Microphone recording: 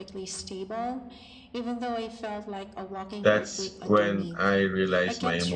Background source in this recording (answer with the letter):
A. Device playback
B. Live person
A